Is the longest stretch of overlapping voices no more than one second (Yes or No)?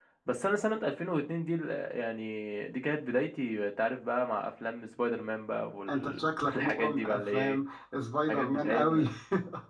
No